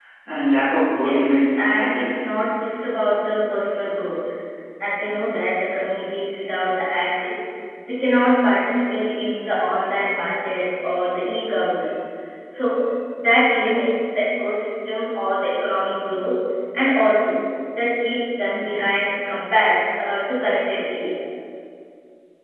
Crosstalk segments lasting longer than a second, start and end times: 1.0-2.2

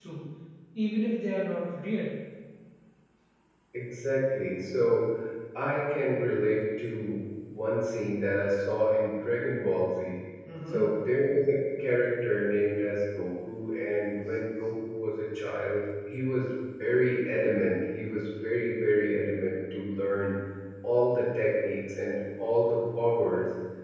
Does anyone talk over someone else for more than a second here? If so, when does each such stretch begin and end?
none

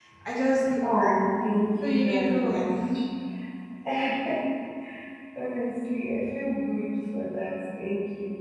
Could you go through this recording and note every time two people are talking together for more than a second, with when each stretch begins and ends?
1.8-3.0

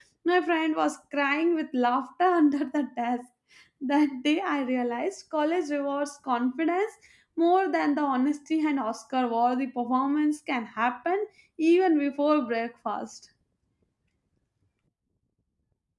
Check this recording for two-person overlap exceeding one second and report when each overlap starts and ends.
none

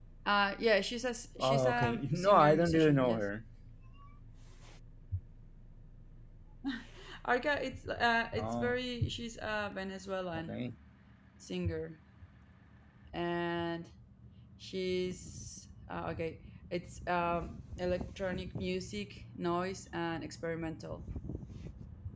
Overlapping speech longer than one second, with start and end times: 1.4-3.2

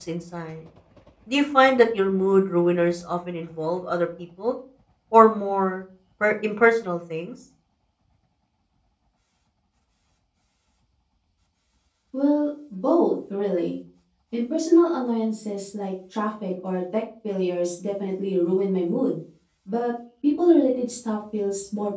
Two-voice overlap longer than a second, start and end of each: none

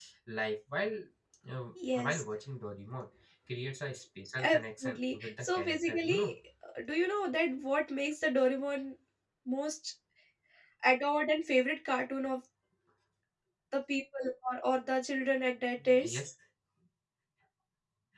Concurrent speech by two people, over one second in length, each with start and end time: 4.4-6.3

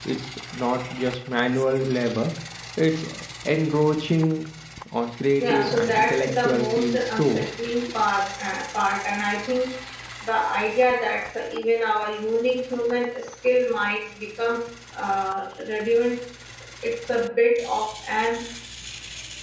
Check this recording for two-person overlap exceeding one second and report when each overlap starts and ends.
5.4-7.4

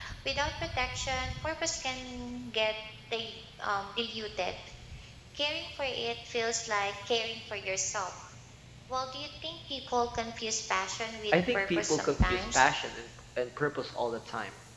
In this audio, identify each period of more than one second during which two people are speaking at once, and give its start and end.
11.3-12.6

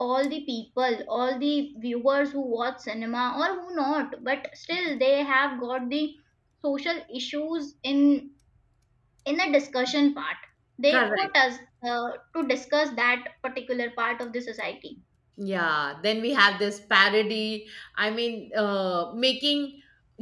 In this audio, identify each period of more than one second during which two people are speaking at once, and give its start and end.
none

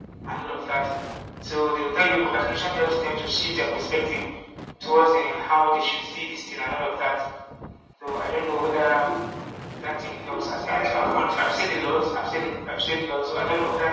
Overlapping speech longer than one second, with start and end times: 10.6-12.7

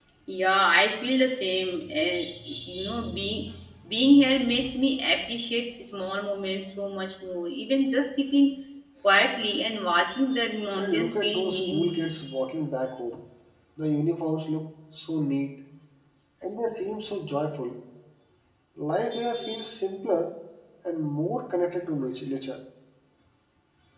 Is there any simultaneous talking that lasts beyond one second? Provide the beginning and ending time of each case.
10.8-12.1

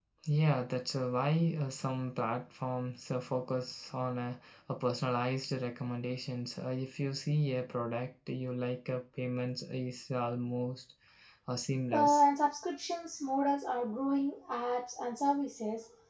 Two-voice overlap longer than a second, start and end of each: none

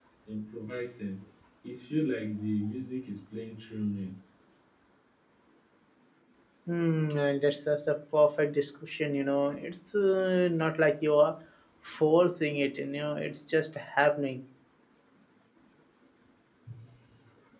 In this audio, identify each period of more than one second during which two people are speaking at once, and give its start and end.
none

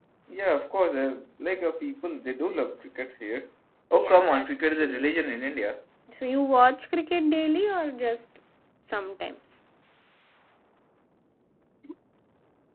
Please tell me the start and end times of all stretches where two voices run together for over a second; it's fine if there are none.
3.9-5.2

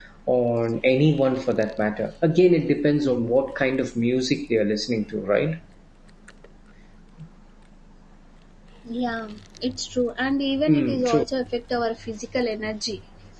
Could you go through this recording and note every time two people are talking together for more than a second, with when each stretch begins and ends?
none

